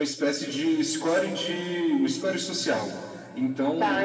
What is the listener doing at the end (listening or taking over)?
listening